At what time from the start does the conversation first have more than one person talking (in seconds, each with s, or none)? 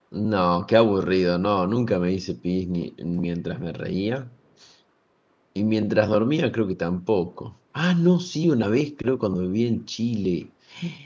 none